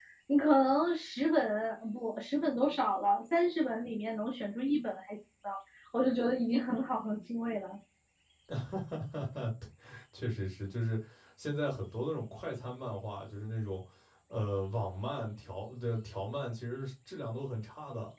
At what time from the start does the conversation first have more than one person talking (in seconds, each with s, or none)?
none